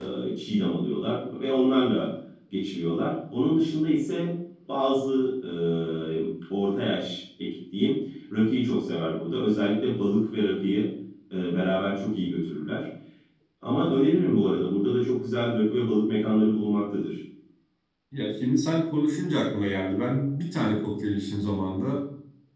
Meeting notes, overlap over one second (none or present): none